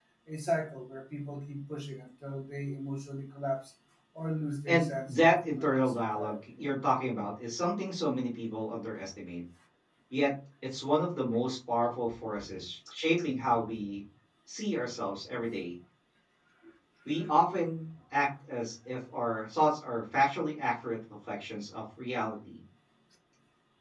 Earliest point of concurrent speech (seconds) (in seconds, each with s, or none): 4.7 s